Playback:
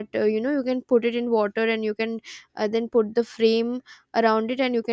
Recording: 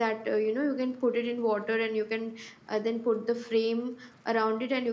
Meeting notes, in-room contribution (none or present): none